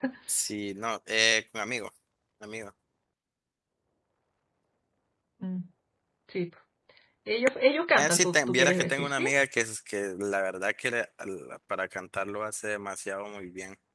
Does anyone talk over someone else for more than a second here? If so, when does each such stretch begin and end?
8.0-9.3

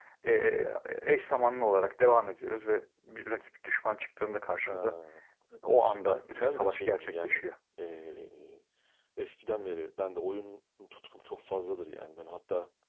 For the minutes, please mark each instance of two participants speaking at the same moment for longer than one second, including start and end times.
5.8-7.4

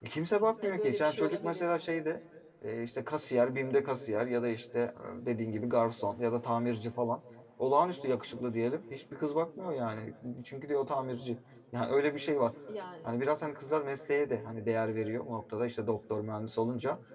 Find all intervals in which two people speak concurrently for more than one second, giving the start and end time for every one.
0.6-2.0

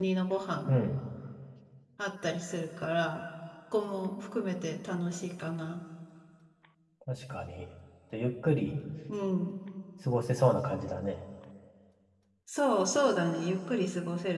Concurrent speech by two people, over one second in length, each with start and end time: none

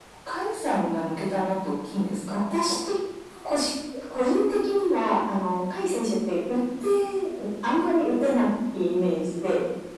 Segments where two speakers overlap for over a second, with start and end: none

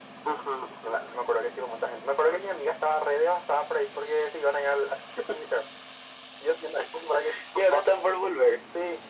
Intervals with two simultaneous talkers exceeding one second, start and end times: none

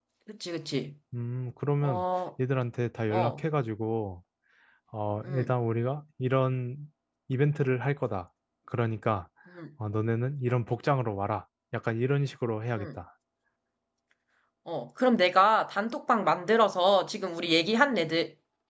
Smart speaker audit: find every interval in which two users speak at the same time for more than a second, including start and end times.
none

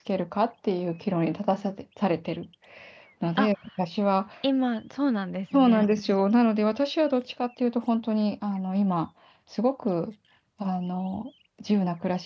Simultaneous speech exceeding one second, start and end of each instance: none

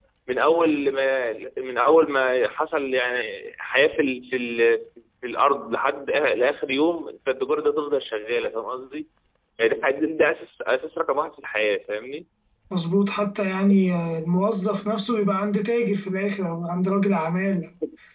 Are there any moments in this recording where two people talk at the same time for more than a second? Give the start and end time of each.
none

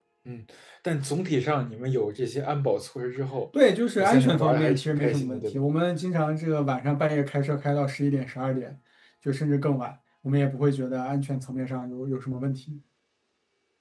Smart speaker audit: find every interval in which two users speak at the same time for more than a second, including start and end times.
4.0-5.6

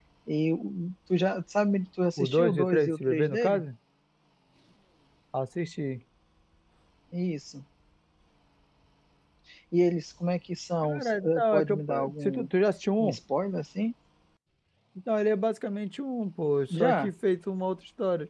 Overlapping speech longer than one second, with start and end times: 2.2-3.6, 10.8-12.5

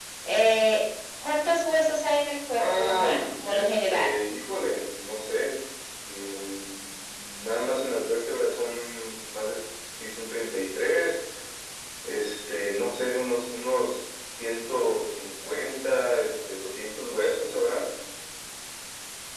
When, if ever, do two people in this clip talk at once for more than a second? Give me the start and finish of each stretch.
2.6-4.2

